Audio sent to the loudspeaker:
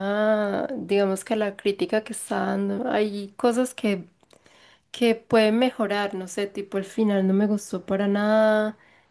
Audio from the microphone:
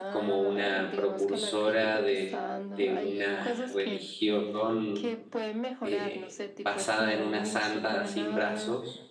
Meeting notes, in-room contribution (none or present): present